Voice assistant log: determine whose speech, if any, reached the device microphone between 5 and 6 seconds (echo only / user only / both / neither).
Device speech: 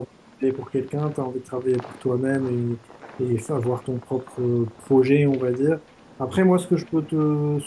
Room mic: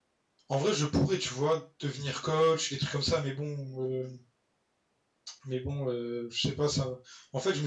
user only